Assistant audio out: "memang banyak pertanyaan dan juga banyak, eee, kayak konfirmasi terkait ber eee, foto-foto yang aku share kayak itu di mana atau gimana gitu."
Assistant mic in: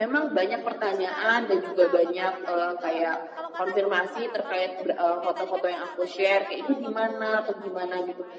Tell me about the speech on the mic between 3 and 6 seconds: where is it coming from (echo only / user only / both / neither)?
both